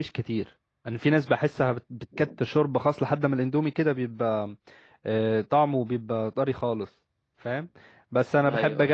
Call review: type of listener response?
listening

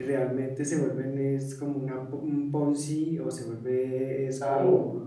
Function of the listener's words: taking over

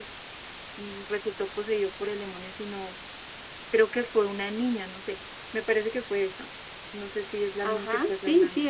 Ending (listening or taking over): taking over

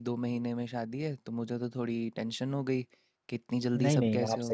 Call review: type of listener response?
taking over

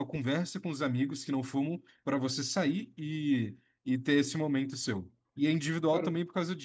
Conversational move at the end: listening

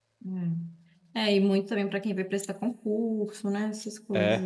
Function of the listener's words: taking over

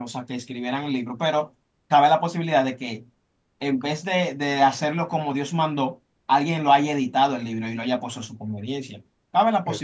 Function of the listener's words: listening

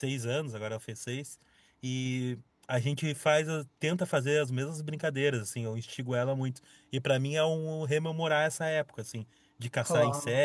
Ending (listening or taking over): listening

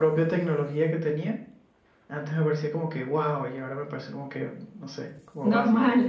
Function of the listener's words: taking over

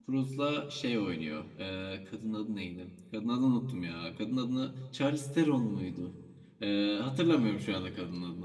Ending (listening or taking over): listening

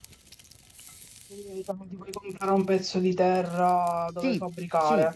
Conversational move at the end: taking over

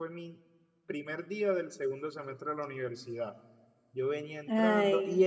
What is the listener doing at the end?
listening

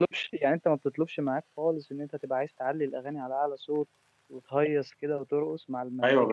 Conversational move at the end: taking over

